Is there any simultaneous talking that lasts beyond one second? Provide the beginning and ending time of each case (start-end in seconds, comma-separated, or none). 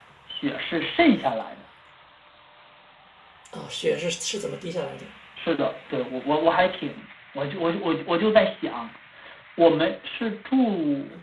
none